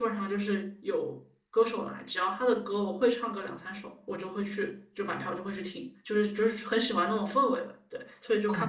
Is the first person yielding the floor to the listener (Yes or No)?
Yes